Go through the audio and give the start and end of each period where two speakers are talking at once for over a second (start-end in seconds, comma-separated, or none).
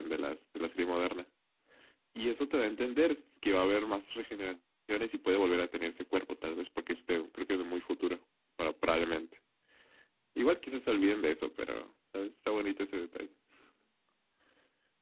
none